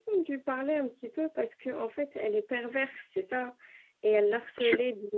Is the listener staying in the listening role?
Yes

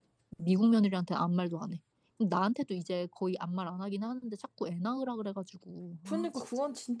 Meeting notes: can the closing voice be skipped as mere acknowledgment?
No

